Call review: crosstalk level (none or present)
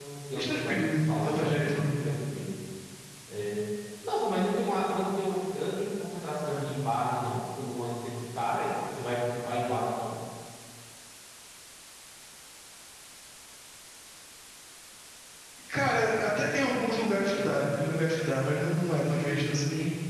present